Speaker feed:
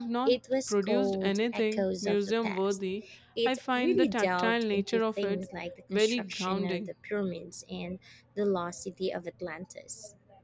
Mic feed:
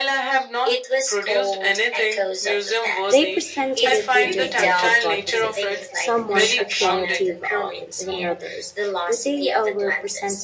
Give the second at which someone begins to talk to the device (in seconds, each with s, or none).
3.1 s